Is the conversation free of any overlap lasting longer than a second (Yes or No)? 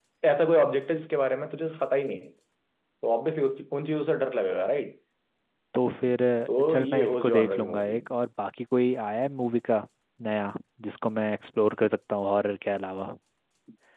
No